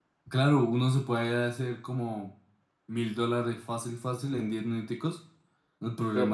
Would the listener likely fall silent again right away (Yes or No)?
Yes